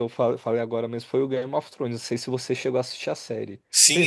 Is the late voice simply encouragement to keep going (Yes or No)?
No